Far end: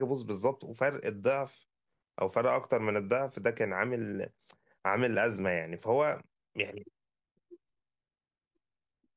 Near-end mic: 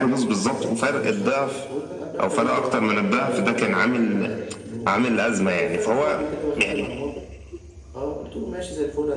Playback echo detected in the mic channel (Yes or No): Yes